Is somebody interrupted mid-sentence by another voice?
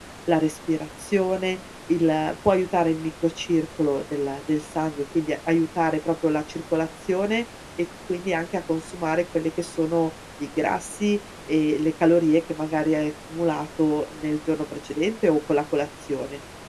No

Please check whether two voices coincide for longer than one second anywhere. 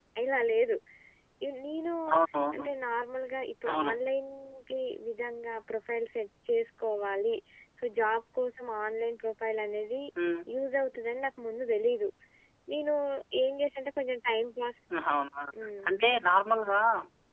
No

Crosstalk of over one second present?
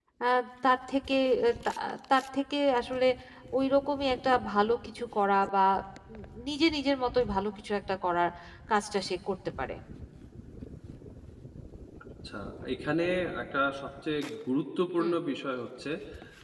No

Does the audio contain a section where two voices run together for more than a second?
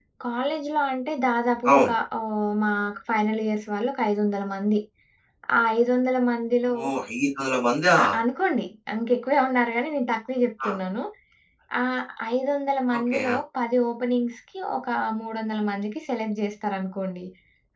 No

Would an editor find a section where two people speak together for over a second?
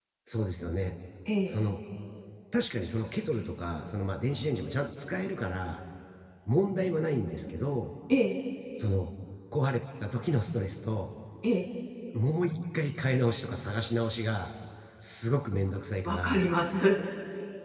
No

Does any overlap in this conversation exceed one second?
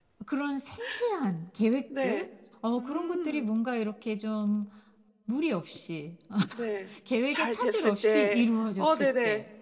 Yes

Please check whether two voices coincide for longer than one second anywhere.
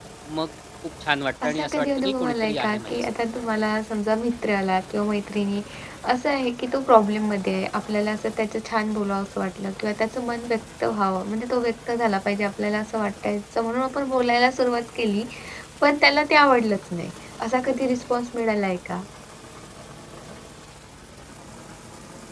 Yes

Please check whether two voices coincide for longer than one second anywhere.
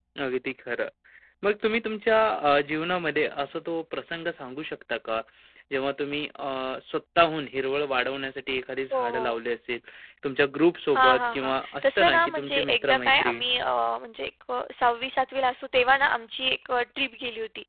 Yes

